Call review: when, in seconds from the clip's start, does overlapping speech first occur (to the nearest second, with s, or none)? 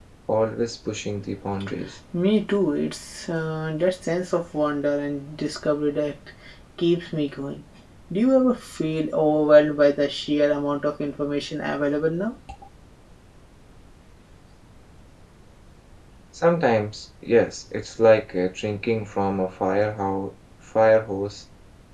none